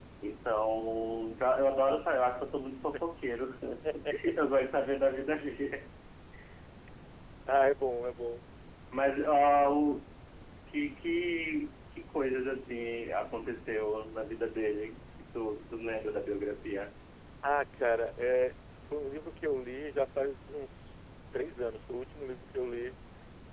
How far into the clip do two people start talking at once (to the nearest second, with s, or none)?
none